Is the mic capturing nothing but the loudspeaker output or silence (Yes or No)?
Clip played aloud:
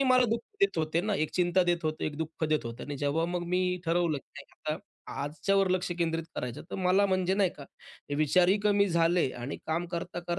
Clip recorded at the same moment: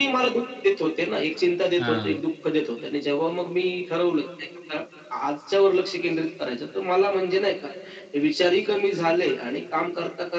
No